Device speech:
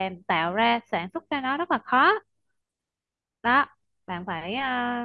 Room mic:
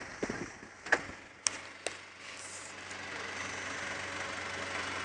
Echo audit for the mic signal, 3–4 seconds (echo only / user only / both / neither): neither